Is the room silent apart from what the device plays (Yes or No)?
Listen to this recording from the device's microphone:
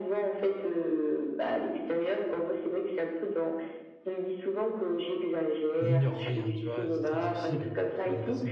No